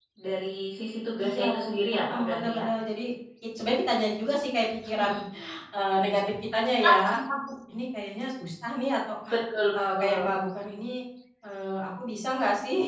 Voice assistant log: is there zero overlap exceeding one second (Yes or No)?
No